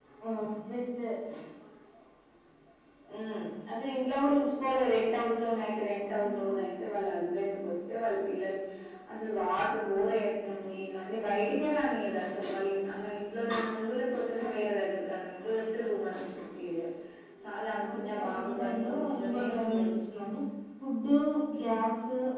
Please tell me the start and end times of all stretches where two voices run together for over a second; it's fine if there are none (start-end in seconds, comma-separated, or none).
17.7-19.9